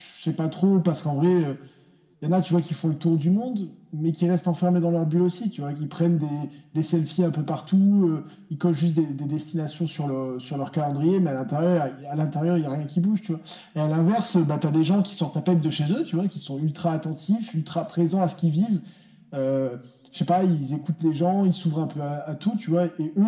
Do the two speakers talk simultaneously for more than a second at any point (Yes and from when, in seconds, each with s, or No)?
No